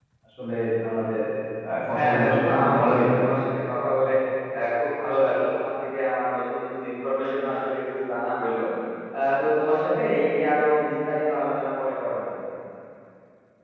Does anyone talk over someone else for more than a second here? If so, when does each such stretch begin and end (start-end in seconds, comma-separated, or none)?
1.9-3.3